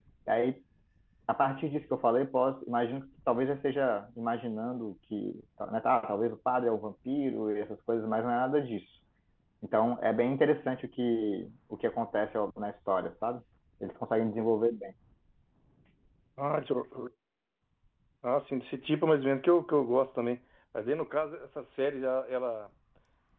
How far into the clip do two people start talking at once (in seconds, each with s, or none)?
none